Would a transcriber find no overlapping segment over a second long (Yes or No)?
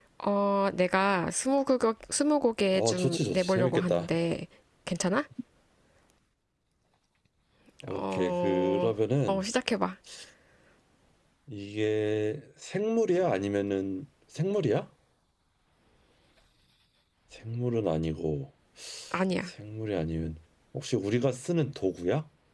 No